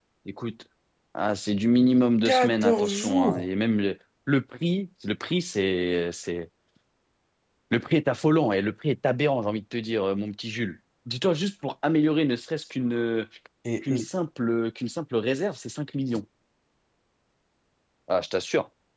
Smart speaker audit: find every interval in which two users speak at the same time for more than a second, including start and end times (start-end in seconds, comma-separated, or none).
2.2-3.5